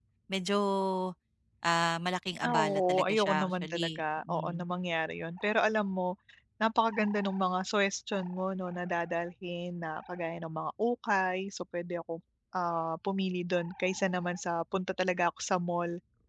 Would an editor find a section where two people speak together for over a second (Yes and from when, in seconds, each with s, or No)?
Yes, from 2.5 s